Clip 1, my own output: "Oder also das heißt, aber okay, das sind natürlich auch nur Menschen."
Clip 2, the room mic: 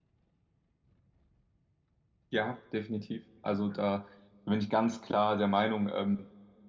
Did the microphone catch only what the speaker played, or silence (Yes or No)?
No